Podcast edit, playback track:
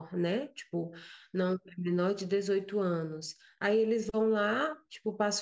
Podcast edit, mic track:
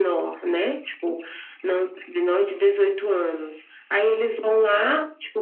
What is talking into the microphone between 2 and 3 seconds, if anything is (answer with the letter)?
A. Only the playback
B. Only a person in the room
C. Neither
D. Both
A